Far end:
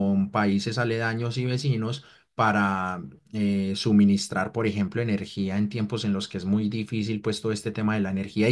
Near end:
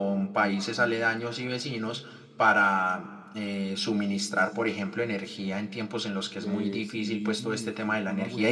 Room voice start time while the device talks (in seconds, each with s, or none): 6.3 s